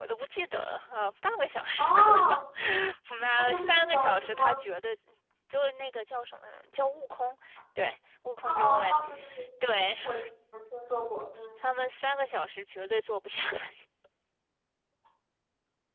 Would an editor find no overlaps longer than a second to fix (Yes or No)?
No